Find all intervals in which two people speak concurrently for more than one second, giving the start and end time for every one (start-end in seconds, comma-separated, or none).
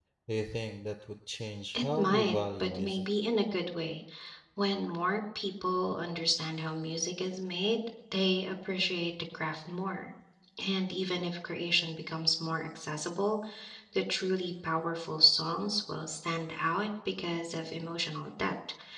1.7-3.1